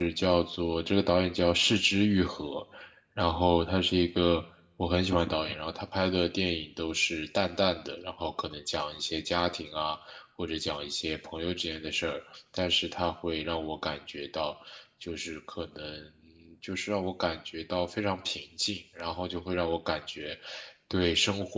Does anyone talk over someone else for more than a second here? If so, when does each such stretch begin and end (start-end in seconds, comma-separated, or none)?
none